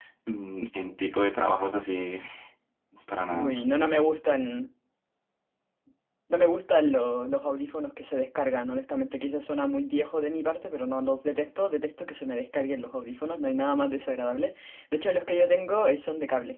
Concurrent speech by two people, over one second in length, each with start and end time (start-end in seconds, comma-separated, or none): none